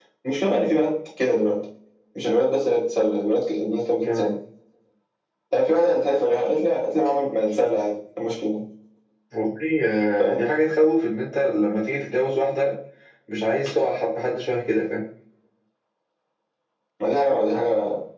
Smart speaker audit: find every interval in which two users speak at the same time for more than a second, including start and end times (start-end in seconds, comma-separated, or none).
none